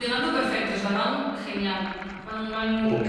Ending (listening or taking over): listening